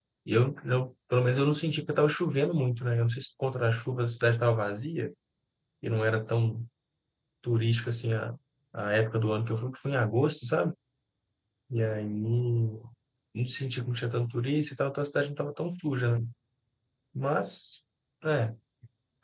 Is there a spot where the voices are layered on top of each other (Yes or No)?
No